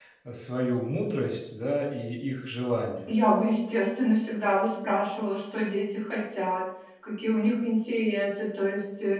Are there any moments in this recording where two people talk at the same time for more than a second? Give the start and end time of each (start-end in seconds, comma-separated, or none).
none